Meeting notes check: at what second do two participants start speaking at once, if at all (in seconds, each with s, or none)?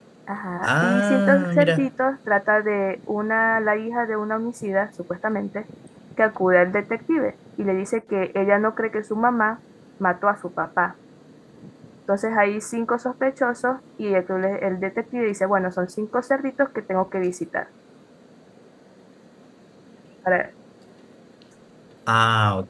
0.6 s